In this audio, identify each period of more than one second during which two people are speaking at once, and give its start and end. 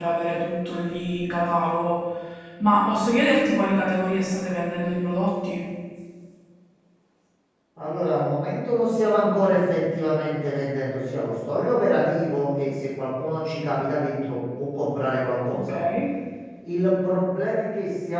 none

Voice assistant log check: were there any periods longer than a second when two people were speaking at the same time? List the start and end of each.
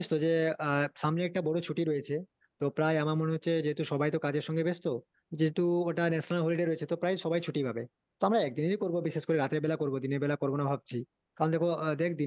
none

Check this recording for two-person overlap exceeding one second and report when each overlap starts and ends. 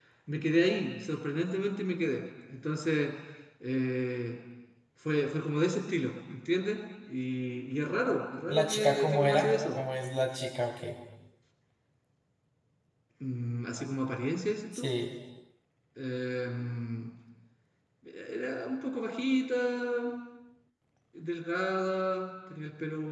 8.5-9.8

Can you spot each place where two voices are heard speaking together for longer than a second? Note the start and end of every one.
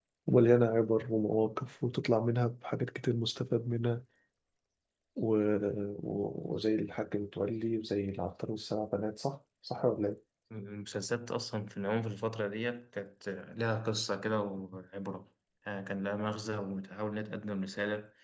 none

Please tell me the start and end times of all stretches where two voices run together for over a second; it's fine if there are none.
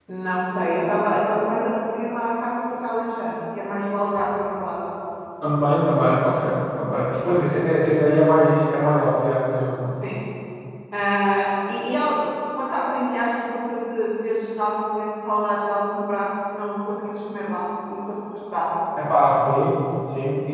none

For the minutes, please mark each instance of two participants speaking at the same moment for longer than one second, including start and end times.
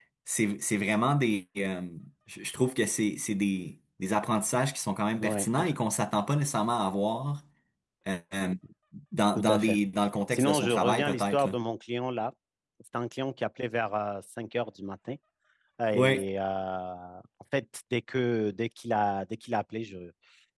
10.3-11.6

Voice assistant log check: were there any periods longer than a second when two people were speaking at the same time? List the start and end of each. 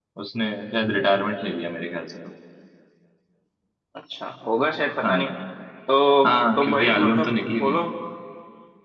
6.2-7.8

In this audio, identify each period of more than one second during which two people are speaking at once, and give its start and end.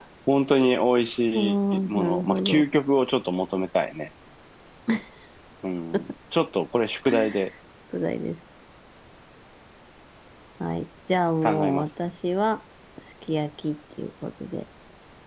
1.3-2.6

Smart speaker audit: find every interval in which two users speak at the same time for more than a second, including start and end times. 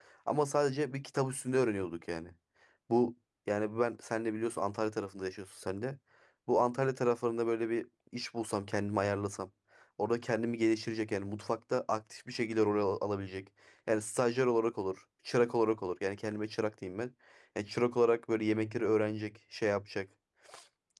none

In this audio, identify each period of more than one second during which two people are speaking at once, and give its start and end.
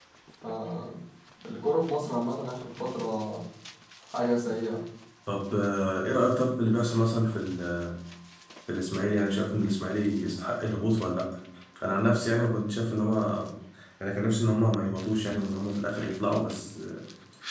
none

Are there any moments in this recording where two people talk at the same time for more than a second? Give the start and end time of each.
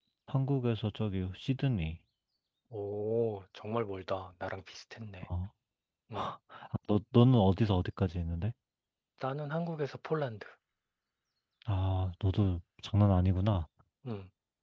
none

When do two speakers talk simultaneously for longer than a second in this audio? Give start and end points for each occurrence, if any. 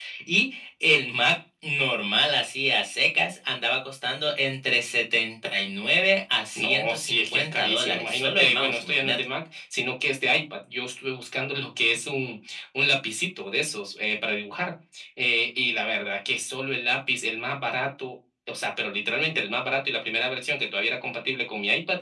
6.5-9.2

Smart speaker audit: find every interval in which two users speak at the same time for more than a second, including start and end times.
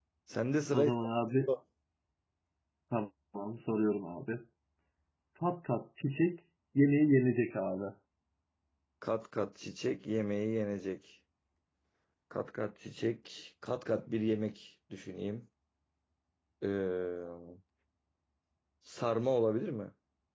none

